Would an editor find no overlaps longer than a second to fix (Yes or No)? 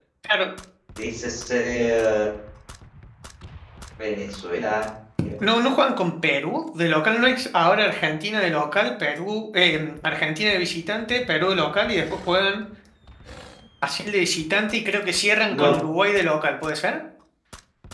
Yes